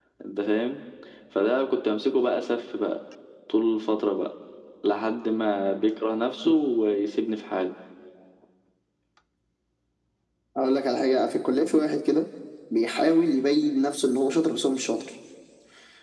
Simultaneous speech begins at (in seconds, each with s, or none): none